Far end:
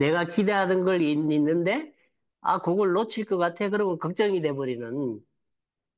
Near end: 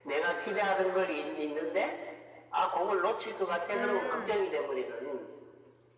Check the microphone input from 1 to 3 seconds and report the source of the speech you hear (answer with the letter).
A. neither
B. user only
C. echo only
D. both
C